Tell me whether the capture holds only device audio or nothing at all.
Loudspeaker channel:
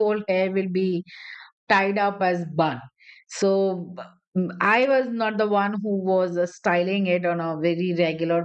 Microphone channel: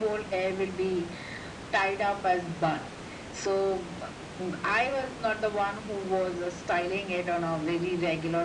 Yes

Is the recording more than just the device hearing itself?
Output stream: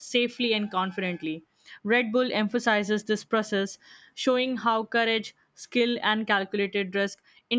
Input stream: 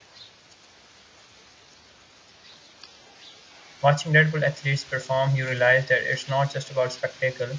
Yes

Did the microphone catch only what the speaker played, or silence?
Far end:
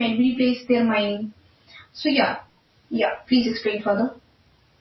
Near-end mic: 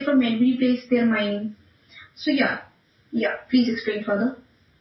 Yes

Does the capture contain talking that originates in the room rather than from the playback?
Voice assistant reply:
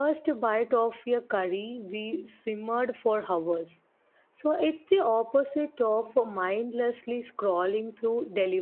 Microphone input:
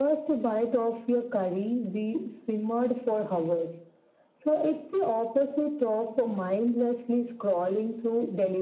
No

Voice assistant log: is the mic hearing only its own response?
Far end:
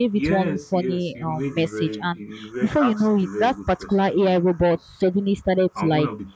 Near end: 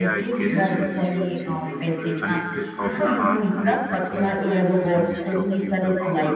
No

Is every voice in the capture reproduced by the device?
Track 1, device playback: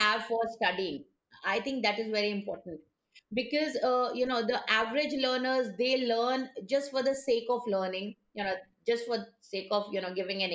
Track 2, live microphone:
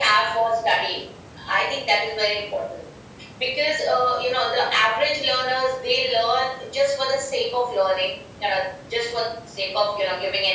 Yes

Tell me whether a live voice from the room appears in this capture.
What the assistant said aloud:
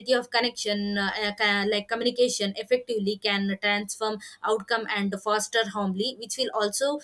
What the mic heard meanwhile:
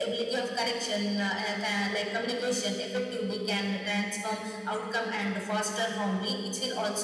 No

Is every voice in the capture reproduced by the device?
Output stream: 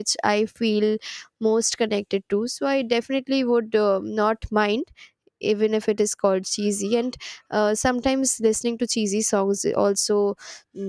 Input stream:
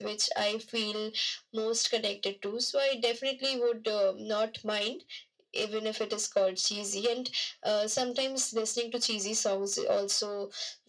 Yes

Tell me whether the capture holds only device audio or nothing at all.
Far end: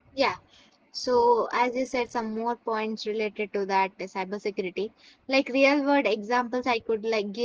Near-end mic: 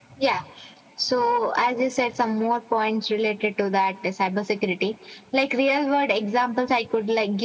Yes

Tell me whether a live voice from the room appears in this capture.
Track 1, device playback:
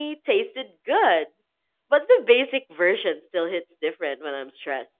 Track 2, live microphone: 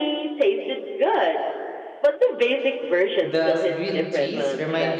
Yes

